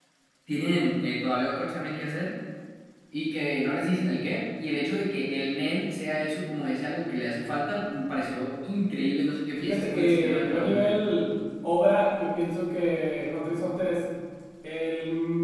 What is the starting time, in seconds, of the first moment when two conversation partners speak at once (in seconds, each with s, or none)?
9.6 s